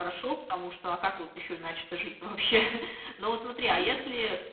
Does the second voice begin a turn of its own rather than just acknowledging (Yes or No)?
No